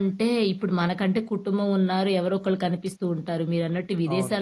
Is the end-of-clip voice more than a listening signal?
No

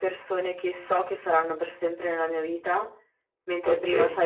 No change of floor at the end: Yes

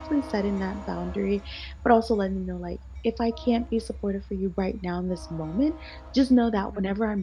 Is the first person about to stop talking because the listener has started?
No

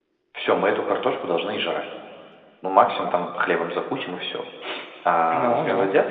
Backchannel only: Yes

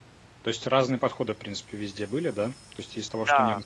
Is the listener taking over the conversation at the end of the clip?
No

